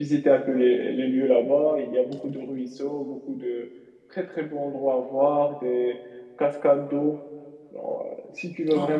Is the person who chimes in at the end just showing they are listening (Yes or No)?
Yes